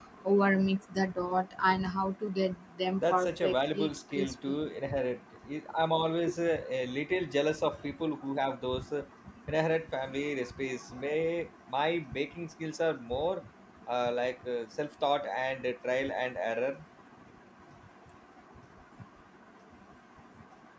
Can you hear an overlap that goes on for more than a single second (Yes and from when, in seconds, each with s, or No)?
Yes, from 3.0 s